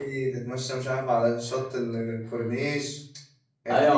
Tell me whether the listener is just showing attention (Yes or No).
No